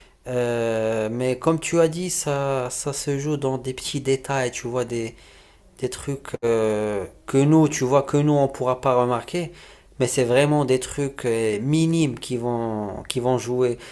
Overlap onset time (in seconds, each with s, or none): none